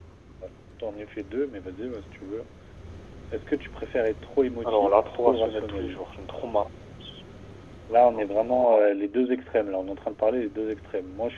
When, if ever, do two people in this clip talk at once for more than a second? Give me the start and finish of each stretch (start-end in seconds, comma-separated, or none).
4.6-6.0